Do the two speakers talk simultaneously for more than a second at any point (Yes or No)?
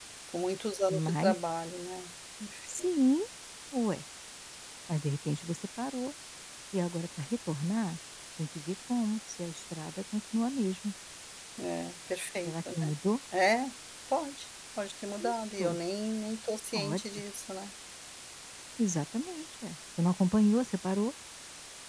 No